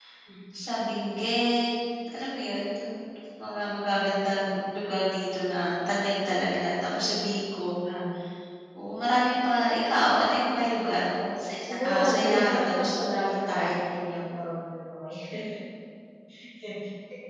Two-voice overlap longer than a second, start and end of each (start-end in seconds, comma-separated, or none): 11.6-13.7